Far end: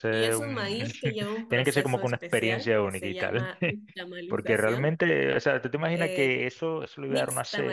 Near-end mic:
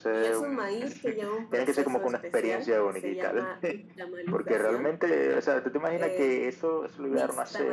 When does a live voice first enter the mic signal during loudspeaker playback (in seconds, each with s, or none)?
none